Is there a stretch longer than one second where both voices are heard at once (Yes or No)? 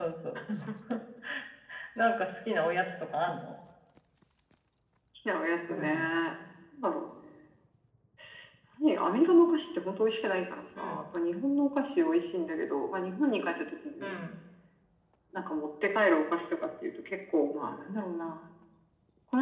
No